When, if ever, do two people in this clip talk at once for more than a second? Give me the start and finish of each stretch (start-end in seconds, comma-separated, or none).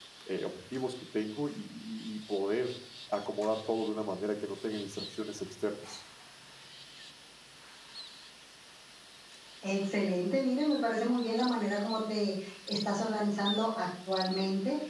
none